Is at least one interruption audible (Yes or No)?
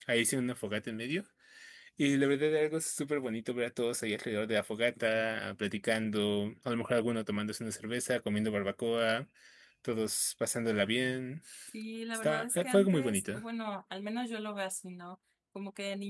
Yes